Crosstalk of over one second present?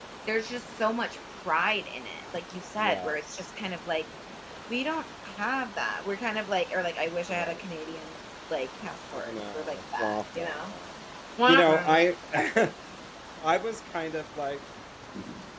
Yes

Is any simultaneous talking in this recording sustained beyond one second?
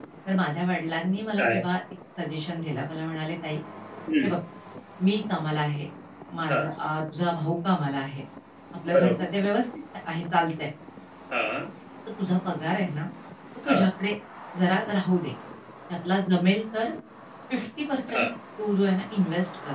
No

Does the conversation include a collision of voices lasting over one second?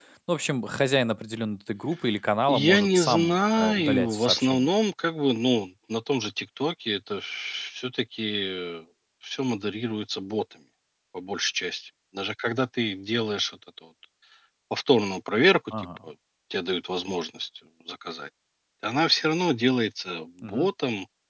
Yes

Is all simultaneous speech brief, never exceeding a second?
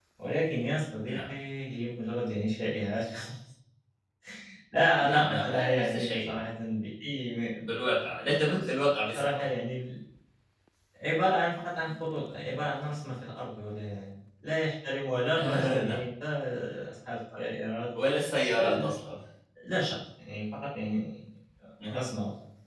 No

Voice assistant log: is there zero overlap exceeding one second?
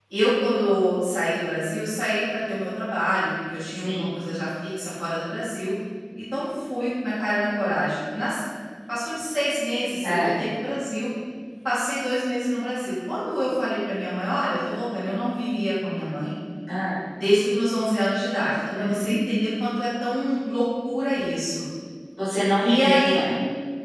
Yes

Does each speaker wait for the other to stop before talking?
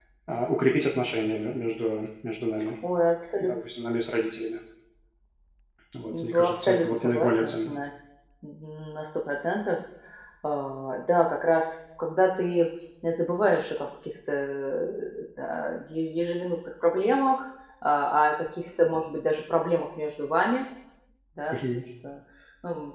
No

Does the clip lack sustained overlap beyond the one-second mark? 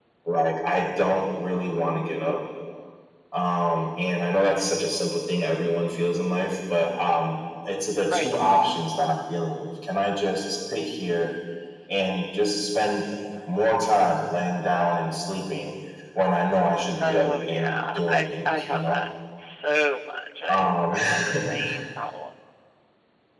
No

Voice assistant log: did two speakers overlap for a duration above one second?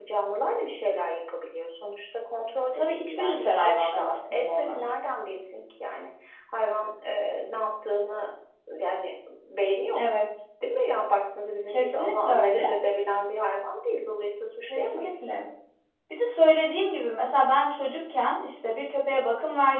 Yes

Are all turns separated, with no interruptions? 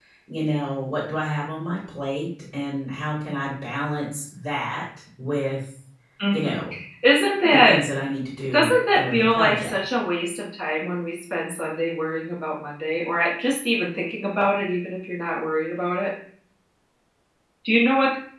No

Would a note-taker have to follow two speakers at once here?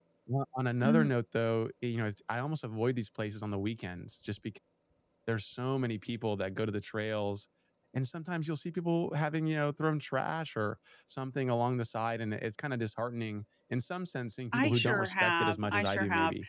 Yes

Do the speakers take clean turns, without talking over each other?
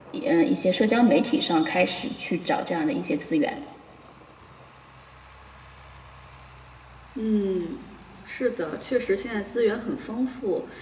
Yes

